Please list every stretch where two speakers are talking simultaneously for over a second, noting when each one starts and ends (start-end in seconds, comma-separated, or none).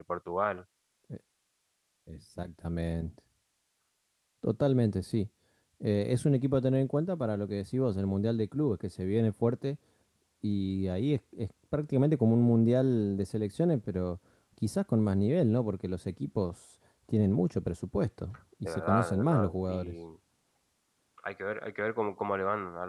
18.6-19.9